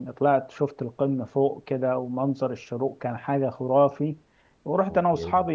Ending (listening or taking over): listening